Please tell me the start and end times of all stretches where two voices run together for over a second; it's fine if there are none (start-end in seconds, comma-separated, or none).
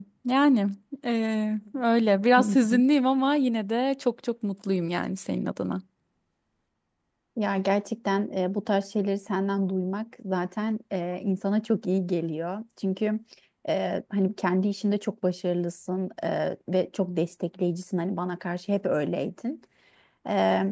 none